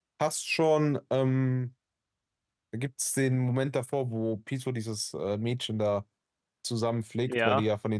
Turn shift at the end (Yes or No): No